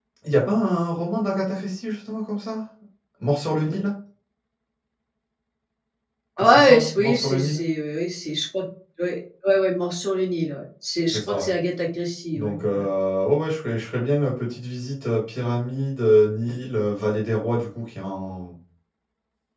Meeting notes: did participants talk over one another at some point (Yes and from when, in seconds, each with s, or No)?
Yes, from 6.4 s